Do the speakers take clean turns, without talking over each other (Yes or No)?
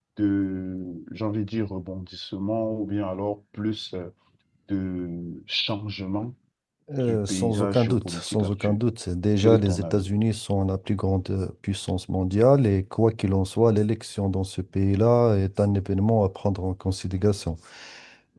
No